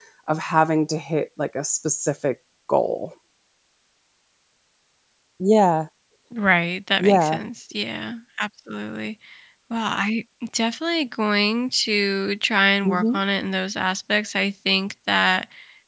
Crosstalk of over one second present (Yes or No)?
No